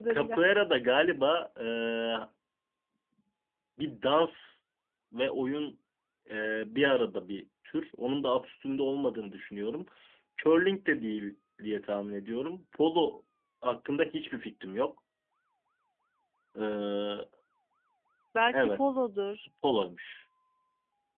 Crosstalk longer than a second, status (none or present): none